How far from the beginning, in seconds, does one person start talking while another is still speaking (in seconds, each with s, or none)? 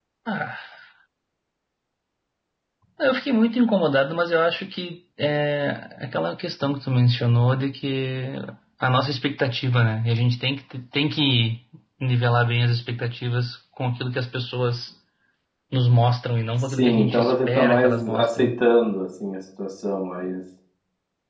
16.7 s